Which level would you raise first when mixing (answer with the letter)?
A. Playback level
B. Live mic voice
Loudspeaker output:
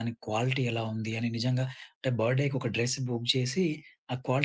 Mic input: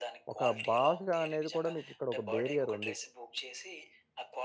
A